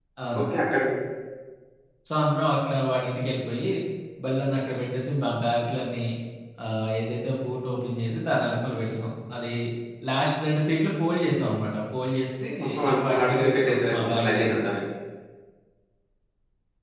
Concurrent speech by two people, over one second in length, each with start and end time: 12.9-14.6

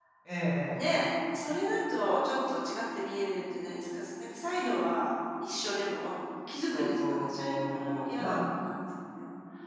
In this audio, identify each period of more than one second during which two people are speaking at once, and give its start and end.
6.7-8.4

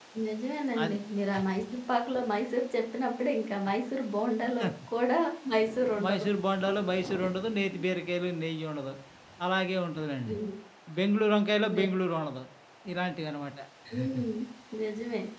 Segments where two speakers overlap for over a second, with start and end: none

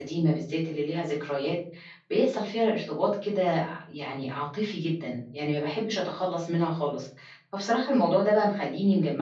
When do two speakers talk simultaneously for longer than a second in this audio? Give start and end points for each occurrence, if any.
none

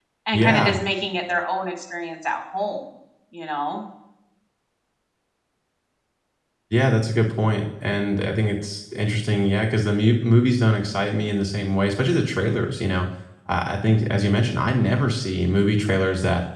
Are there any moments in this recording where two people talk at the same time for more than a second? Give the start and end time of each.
none

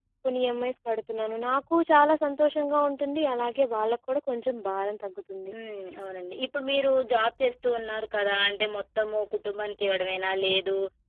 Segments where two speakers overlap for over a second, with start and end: none

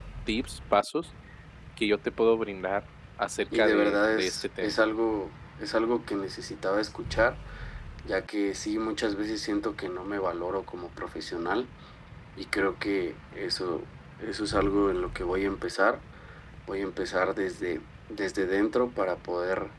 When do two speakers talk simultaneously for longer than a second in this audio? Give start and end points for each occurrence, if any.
3.5-4.8

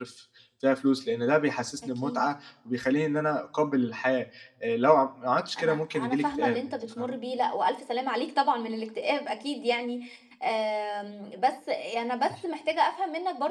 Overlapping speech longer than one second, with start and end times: 5.6-7.2

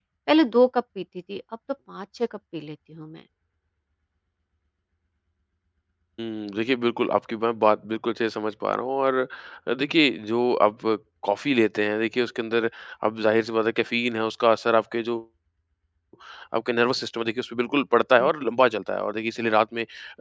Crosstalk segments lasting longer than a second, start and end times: none

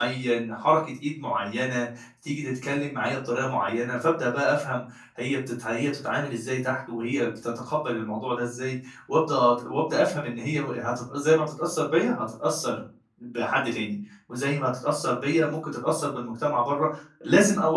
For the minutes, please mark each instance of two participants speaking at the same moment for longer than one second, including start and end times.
none

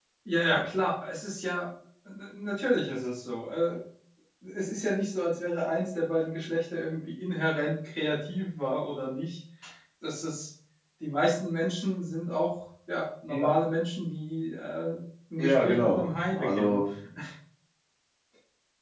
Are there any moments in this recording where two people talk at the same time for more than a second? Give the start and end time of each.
15.4-16.8

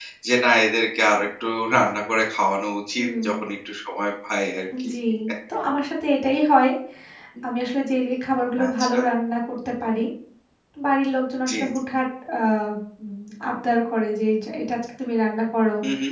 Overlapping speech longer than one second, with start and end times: none

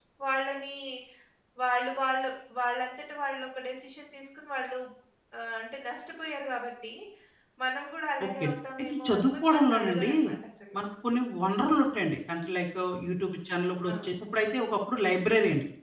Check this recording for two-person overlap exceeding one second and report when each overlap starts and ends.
8.2-10.1

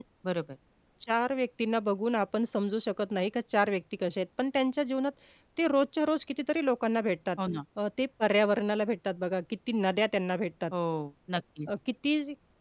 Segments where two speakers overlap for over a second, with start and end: none

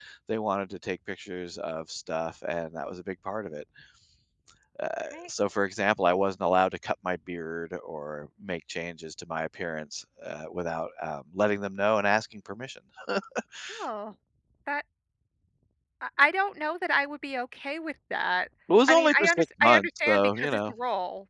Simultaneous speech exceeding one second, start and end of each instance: 18.9-20.7

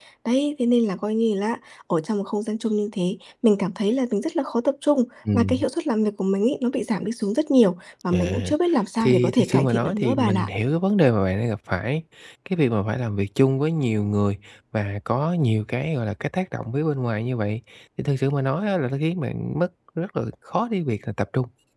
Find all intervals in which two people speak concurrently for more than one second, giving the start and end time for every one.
9.0-10.5

